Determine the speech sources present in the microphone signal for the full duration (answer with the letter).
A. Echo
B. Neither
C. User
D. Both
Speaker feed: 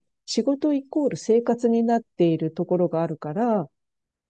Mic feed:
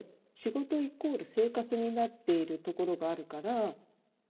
A